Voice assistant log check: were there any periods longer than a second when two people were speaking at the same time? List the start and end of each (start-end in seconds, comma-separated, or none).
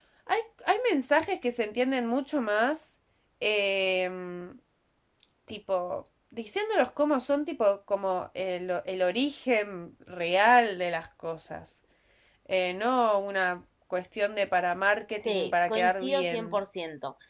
15.2-16.6